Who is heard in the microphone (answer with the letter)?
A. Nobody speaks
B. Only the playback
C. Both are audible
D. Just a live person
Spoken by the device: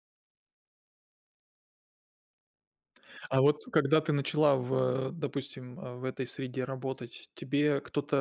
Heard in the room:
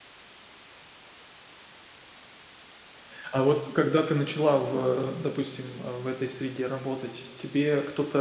B